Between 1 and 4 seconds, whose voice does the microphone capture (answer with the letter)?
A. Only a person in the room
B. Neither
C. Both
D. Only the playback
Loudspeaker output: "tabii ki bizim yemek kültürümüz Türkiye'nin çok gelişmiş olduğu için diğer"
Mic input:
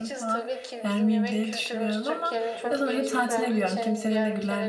C